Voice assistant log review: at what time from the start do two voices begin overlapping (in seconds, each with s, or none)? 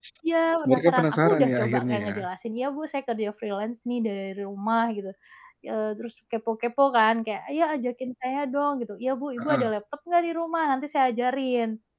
0.7 s